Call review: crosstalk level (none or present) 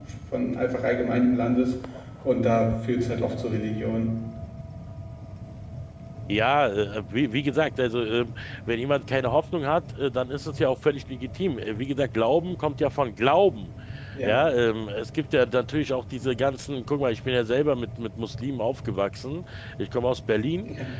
none